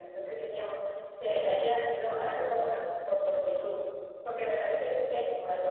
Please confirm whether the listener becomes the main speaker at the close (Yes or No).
No